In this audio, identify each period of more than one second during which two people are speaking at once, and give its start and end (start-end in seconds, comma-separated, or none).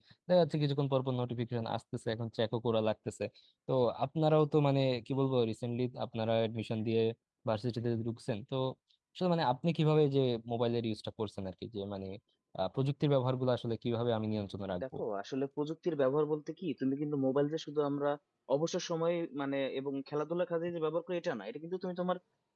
none